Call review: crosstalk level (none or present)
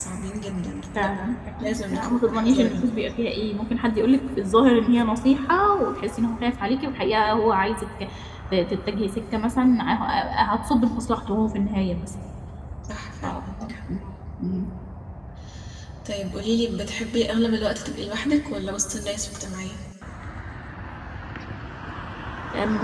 present